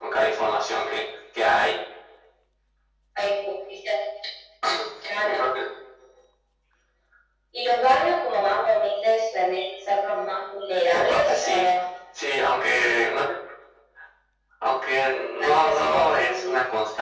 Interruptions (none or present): present